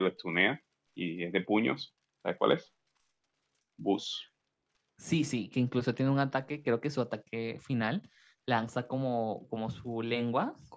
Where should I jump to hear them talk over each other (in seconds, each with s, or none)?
none